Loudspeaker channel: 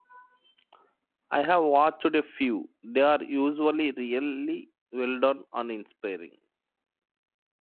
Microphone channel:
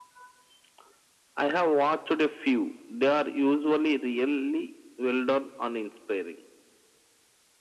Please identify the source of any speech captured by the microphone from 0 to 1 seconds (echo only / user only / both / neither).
neither